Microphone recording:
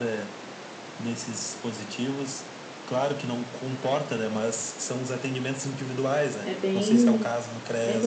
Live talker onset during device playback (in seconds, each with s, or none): 6.4 s